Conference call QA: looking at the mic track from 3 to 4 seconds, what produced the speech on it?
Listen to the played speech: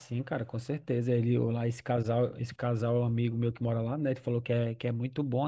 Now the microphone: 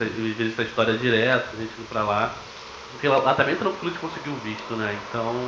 user only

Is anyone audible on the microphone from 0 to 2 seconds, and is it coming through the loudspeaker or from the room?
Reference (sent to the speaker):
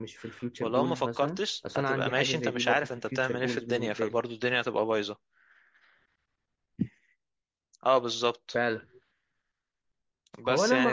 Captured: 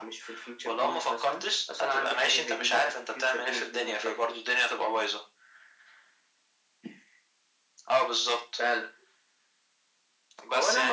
echo only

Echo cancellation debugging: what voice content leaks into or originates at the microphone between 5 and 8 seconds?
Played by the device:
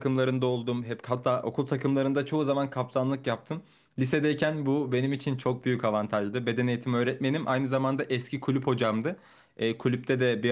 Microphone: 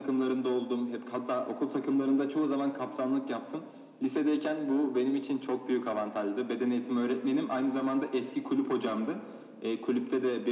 echo only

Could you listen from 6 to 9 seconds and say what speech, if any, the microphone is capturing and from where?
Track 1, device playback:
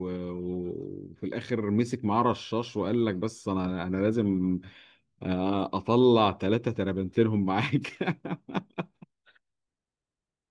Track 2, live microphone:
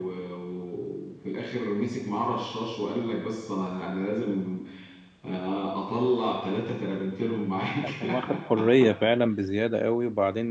both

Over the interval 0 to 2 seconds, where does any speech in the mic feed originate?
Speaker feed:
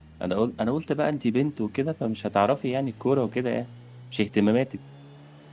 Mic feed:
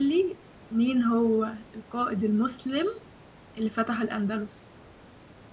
user only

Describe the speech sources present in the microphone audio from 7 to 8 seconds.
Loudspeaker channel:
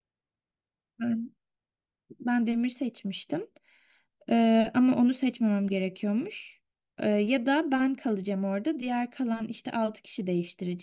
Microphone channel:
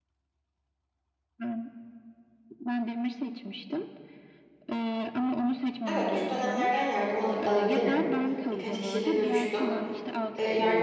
both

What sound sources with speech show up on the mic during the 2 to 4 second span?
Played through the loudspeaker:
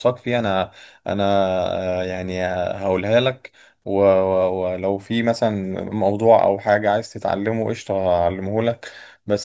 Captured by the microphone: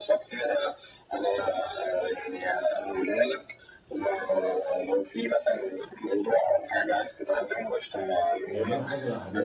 echo only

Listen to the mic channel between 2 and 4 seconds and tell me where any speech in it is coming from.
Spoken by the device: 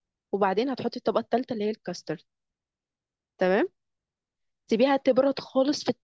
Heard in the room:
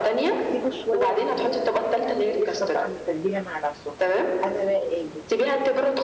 both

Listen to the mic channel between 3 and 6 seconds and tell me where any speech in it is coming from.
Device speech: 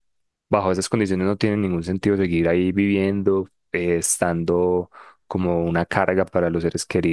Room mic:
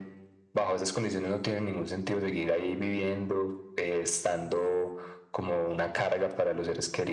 echo only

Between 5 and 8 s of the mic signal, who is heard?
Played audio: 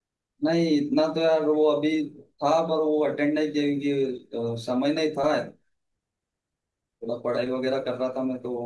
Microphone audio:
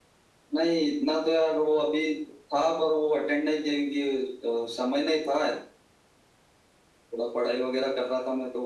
echo only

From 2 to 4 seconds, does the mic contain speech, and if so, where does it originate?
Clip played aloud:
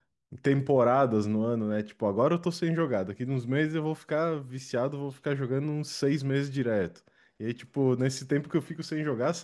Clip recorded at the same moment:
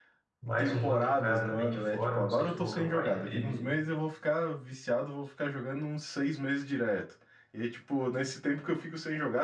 both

